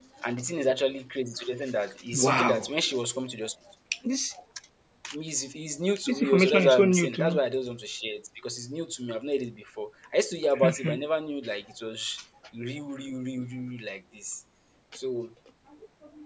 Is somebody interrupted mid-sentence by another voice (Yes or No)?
Yes